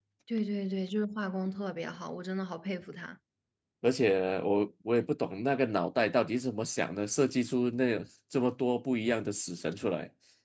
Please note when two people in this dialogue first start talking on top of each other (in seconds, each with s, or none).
none